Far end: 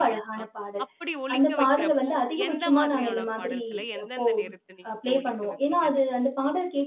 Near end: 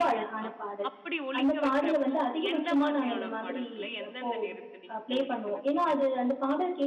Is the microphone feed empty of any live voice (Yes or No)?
Yes